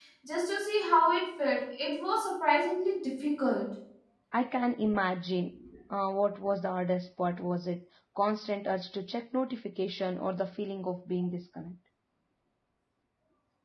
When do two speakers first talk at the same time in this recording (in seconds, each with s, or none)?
none